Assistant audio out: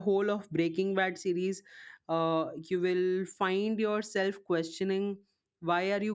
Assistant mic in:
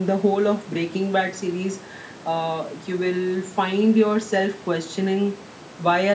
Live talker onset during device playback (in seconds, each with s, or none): none